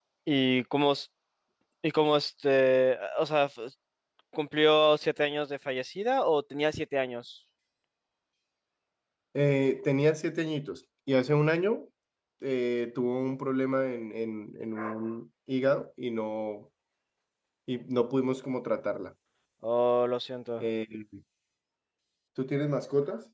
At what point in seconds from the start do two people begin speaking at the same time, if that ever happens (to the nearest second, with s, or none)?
none